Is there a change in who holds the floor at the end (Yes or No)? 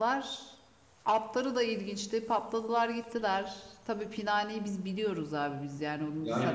Yes